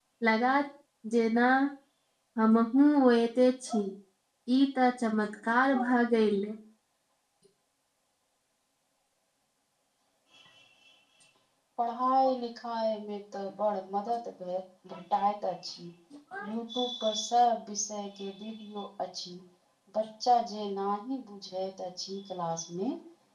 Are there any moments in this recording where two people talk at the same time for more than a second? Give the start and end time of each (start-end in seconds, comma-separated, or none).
none